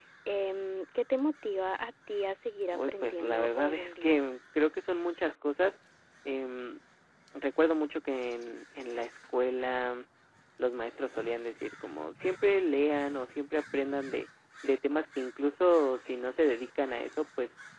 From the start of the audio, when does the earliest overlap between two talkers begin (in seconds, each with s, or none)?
2.7 s